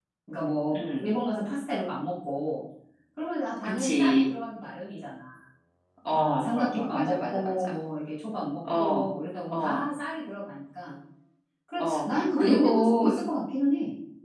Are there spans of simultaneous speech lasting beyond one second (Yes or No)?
Yes